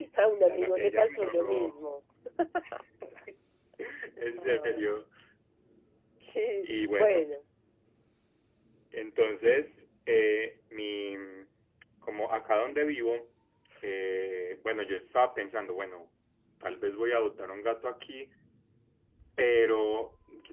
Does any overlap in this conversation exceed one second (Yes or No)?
Yes